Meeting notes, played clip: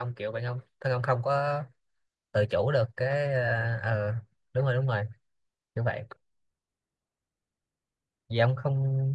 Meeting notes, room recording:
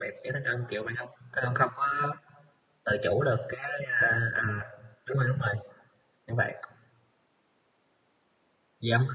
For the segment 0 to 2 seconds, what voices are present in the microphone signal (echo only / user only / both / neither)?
echo only